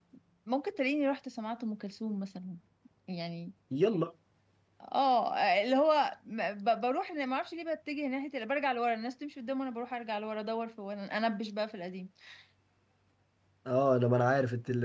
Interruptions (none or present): none